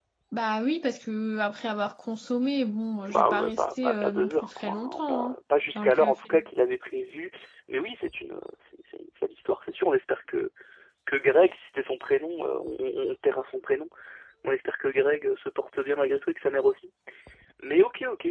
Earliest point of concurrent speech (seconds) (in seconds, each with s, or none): 3.1 s